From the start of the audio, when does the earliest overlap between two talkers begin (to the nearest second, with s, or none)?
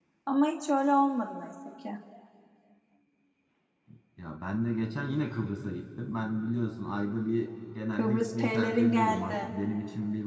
8 s